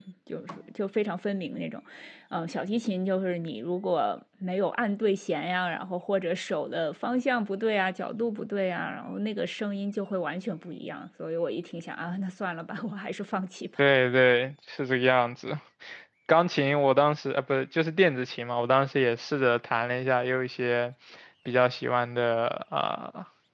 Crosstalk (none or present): none